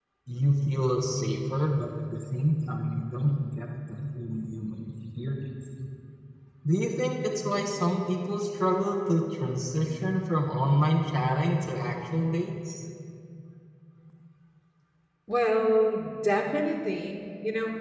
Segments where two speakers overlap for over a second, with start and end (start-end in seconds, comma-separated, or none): none